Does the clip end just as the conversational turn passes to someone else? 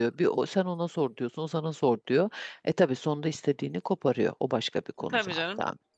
Yes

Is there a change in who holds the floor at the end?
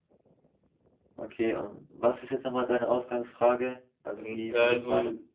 Yes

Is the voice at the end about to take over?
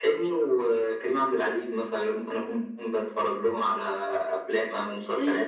Yes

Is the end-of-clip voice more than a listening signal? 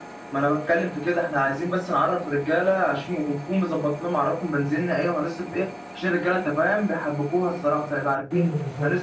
No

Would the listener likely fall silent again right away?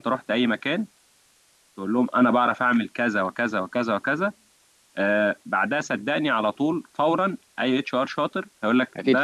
Yes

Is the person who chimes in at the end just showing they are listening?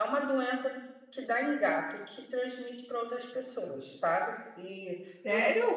No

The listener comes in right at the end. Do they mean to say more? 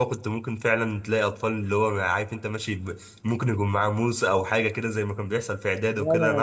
Yes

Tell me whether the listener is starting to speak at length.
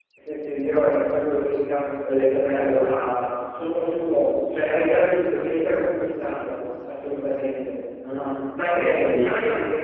No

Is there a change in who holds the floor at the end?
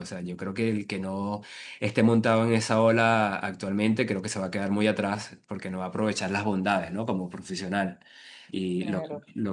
Yes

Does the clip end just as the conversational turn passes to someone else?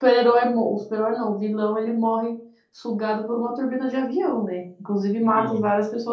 No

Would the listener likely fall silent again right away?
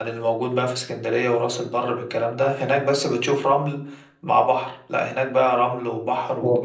No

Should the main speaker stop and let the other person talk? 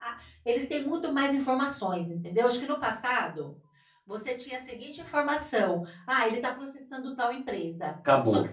No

